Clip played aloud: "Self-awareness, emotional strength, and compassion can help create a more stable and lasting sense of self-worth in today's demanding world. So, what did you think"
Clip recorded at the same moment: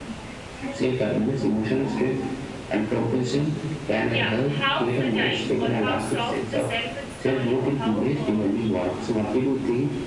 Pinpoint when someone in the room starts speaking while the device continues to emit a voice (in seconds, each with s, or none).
4.1 s